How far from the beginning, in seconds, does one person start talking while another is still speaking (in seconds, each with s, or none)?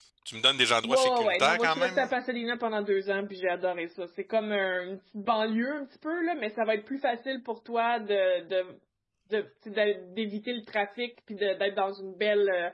0.8 s